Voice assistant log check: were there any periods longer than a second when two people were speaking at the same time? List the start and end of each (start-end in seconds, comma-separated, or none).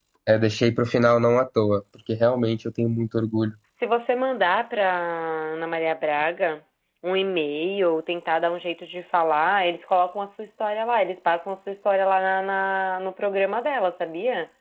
none